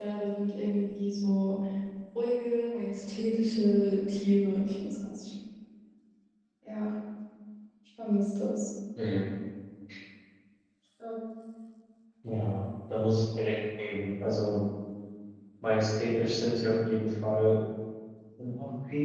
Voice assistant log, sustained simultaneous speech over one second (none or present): none